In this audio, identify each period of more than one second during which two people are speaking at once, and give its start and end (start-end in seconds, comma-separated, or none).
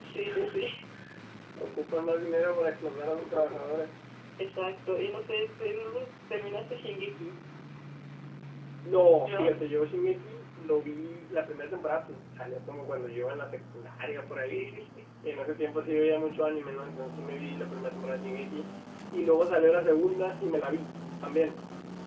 none